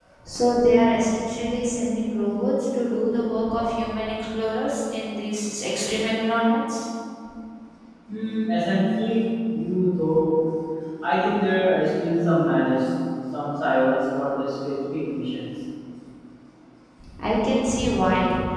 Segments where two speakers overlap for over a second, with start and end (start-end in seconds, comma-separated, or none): none